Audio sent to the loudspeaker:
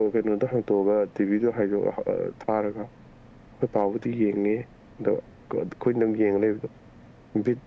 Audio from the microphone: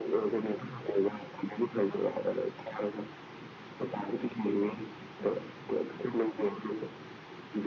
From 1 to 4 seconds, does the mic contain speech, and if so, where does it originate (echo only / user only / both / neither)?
echo only